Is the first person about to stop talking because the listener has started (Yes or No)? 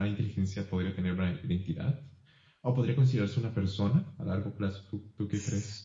Yes